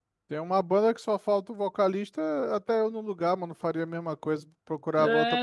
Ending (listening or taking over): taking over